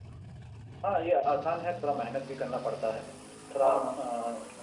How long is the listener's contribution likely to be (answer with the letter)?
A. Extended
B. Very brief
B